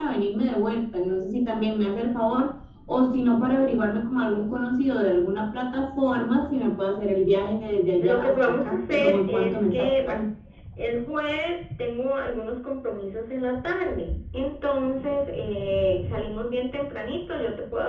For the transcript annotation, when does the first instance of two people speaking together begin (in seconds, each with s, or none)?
8.0 s